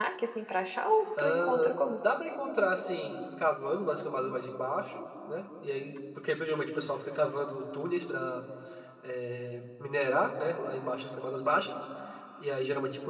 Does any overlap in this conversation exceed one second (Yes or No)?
No